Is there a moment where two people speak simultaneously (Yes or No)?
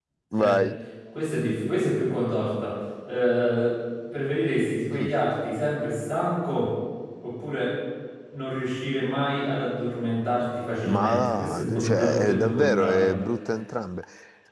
Yes